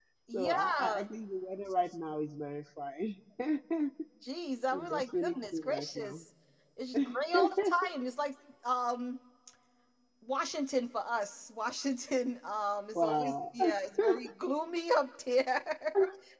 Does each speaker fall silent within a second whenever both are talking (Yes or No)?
No